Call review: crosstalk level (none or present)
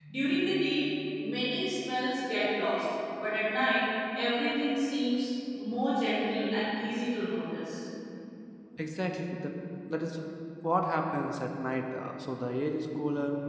none